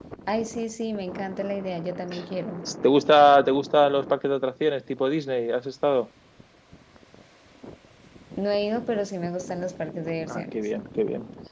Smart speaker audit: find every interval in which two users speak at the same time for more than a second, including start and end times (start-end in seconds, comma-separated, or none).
none